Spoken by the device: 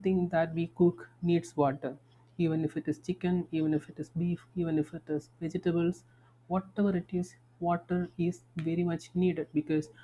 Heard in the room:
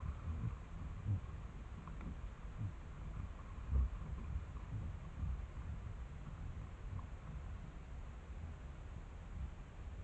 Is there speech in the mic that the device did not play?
No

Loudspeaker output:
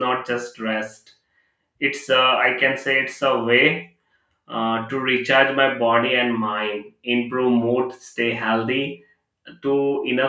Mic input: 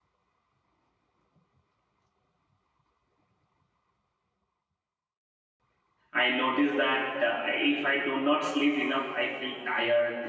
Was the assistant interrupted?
Yes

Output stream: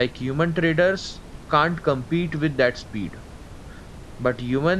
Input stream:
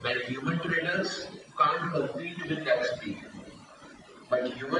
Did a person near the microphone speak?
No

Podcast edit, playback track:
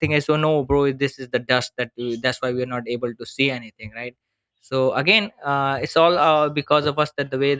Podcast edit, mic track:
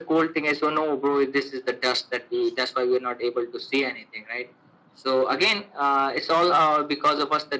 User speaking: No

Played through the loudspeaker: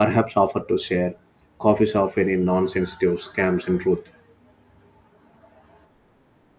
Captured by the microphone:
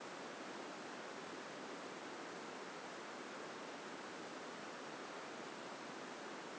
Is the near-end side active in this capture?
No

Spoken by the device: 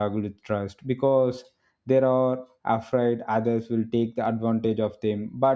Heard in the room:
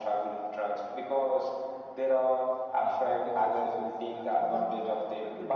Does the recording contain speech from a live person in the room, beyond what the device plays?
Yes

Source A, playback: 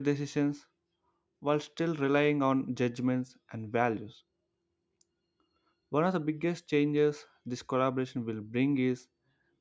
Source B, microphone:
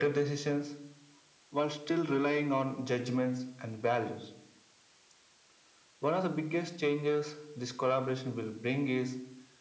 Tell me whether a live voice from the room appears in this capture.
No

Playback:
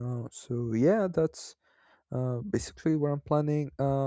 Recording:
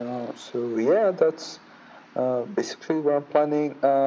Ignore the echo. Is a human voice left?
No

